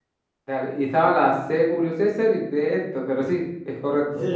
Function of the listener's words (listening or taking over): taking over